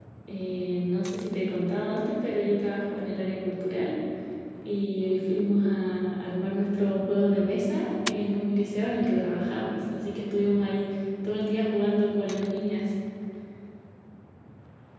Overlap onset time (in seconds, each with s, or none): none